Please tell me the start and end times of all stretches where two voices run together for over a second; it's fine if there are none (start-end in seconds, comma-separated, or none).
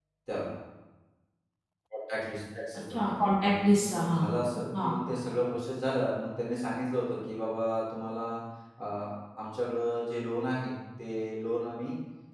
2.9-4.2